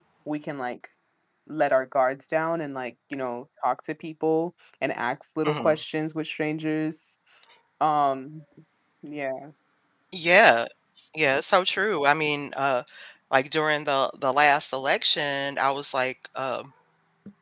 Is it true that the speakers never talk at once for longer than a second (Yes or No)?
Yes